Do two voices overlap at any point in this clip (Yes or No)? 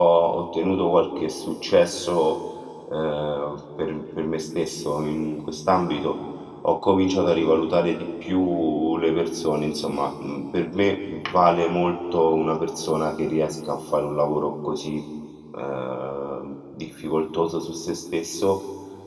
No